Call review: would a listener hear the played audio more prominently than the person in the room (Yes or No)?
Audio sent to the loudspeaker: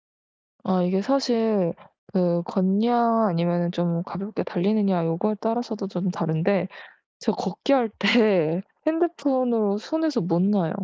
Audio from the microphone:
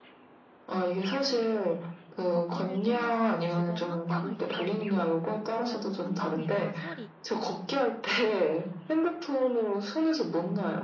Yes